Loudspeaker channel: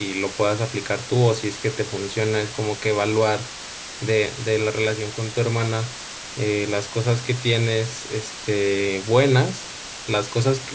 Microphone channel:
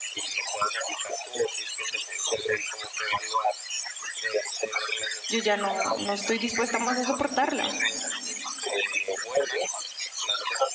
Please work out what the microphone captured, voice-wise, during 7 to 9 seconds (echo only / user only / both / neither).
both